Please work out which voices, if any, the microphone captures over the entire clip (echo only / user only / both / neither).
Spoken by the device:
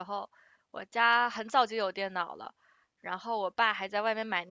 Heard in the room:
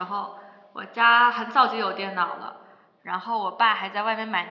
echo only